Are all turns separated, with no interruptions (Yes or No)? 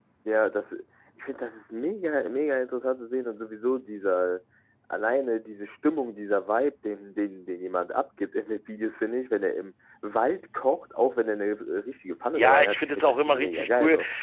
No